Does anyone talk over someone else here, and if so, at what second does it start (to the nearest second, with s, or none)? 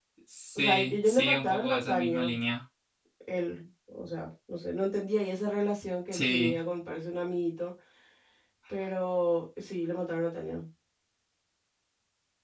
1 s